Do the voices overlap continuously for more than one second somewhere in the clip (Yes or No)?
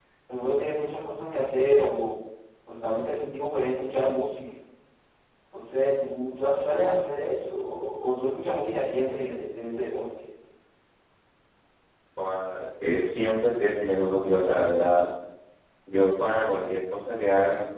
No